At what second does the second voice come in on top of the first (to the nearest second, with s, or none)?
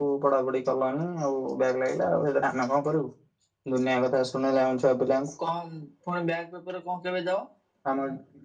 none